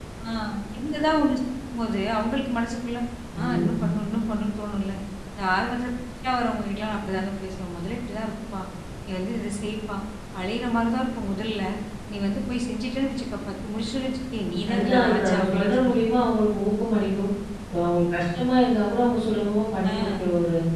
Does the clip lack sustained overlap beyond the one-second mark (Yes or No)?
No